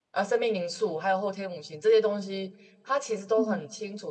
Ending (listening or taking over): listening